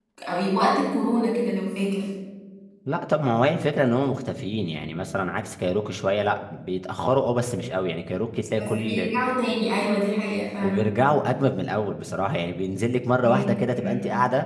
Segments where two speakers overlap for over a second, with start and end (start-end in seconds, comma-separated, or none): none